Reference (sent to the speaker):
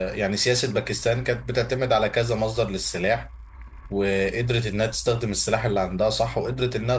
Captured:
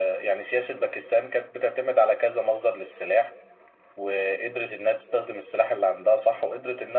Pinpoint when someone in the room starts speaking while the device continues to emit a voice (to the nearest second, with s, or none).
none